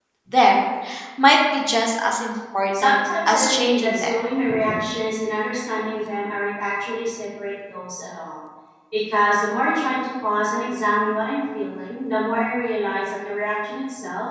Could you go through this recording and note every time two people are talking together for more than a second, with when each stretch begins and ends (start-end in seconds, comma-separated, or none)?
2.8-4.2